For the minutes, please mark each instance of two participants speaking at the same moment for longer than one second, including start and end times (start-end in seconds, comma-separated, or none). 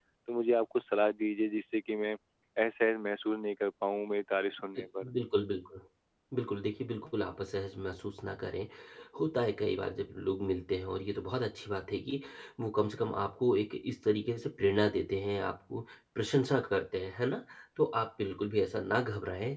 none